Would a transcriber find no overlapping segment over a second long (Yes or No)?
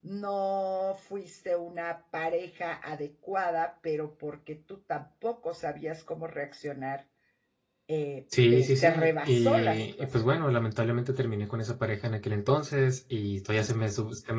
No